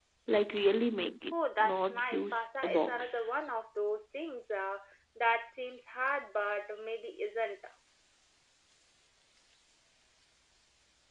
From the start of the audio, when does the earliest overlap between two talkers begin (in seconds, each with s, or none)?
1.6 s